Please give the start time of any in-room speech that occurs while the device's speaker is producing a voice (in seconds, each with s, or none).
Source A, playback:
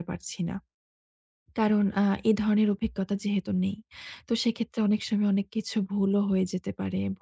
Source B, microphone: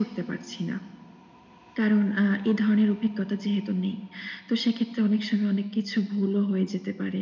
none